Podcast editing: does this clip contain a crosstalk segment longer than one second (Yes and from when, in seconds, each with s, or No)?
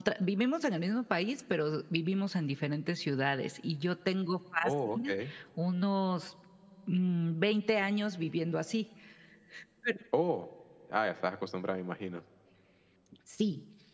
No